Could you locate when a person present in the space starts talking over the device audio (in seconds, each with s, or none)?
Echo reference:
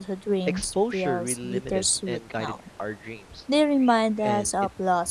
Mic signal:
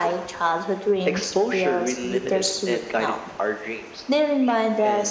none